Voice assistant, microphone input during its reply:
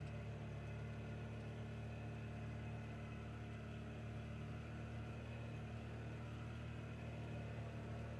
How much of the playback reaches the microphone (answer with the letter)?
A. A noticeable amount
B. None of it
B